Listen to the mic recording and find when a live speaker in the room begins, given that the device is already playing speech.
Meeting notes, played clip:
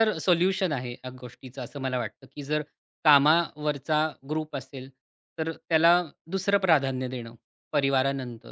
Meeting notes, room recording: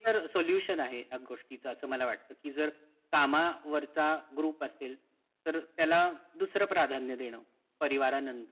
none

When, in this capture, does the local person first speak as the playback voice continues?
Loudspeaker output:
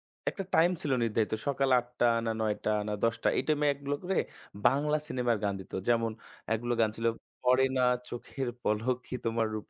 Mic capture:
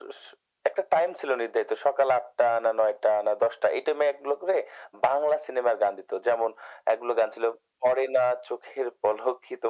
none

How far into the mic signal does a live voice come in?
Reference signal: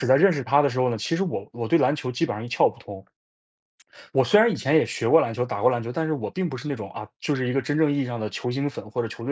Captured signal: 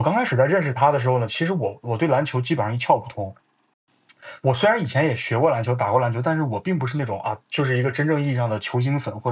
none

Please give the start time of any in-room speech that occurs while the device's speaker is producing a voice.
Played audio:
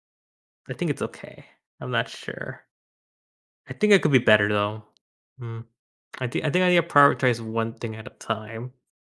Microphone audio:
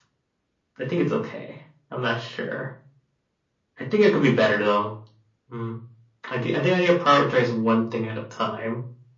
none

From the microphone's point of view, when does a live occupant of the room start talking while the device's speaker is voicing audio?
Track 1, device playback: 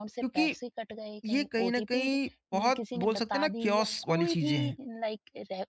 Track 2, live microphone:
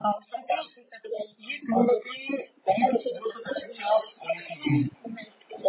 none

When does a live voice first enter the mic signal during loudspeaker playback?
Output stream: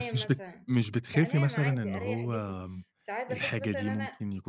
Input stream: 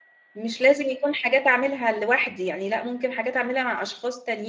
0 s

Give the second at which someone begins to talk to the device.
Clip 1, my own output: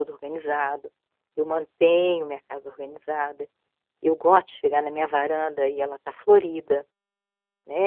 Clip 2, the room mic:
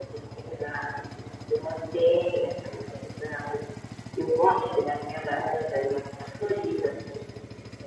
none

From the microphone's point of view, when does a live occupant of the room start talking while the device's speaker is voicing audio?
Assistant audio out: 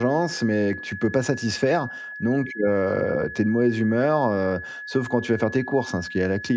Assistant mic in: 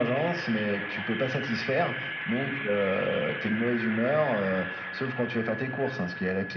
none

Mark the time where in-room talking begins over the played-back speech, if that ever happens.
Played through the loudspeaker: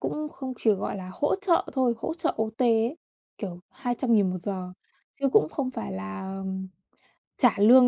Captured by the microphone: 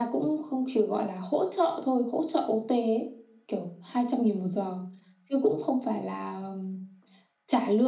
none

